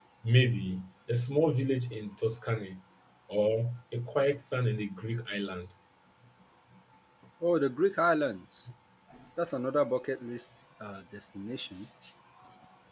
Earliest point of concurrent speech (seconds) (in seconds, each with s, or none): none